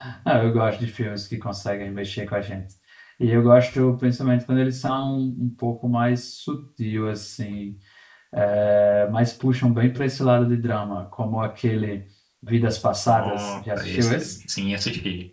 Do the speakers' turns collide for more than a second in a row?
Yes, from 13.1 s

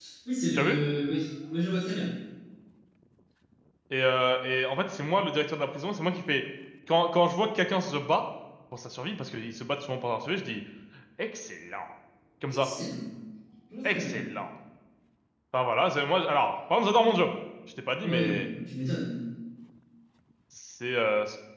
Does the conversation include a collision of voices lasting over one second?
No

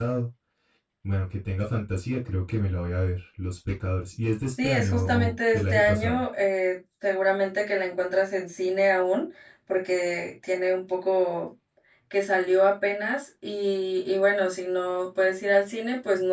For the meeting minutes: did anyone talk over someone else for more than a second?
Yes, from 4.6 s

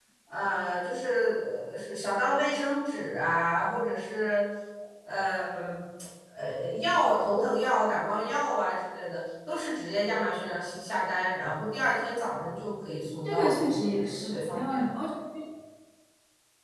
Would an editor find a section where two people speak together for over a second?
Yes, from 13.2 s

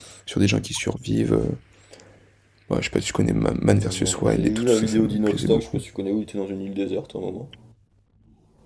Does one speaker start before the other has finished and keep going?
Yes, from 3.8 s

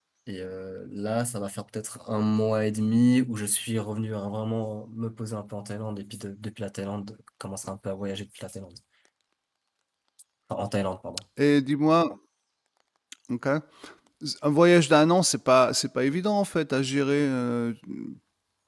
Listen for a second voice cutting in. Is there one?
No

